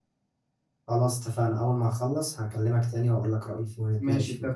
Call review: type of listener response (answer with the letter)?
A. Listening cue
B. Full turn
B